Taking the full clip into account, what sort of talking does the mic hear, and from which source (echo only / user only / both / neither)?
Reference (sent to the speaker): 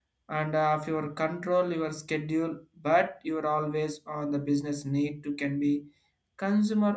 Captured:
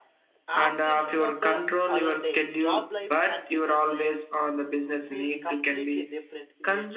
both